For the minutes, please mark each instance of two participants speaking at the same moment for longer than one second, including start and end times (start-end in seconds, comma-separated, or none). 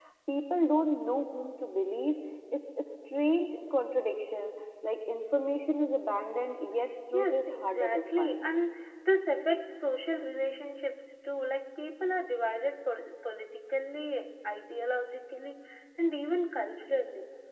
7.1-8.5